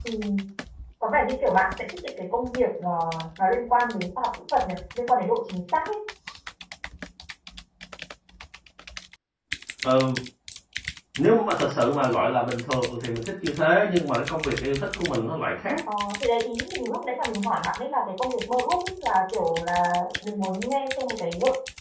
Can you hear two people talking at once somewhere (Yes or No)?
No